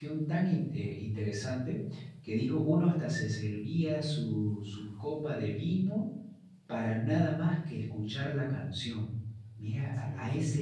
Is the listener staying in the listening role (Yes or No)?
Yes